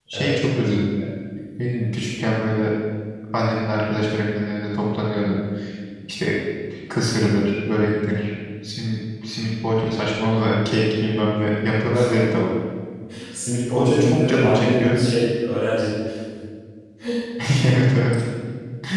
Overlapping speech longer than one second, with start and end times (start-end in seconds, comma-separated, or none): 13.8-15.0